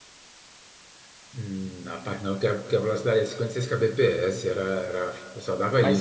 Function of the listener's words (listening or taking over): taking over